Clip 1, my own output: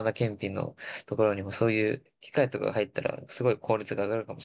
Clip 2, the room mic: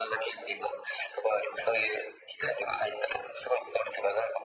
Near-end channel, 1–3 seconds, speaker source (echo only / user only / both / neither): echo only